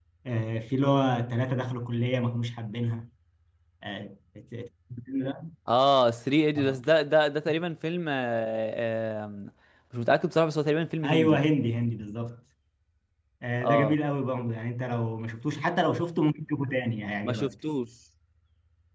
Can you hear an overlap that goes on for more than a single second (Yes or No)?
No